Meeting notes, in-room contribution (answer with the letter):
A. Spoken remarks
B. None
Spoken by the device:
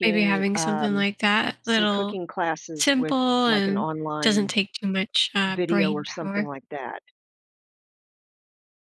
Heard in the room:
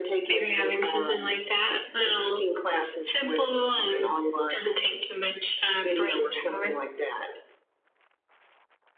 B